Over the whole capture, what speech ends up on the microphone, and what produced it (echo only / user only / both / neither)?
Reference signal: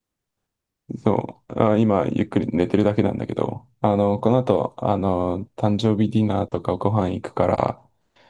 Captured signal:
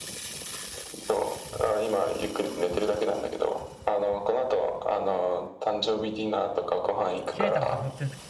both